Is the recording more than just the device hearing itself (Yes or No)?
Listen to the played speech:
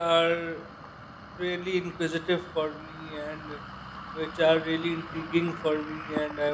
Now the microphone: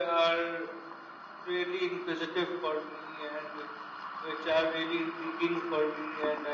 No